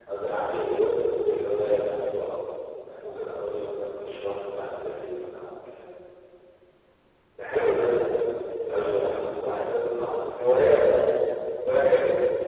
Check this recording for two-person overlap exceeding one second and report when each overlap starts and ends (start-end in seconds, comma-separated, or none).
none